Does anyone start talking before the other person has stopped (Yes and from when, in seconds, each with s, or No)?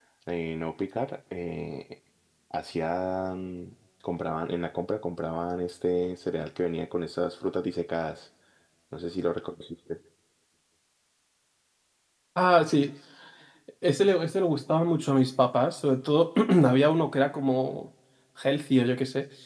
No